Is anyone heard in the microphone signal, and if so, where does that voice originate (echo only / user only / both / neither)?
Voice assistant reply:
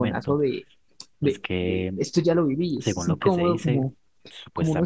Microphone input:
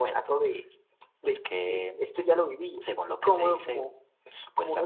echo only